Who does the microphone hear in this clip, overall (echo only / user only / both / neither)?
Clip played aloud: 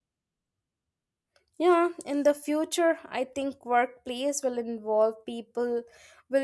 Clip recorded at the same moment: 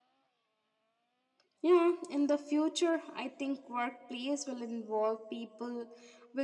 echo only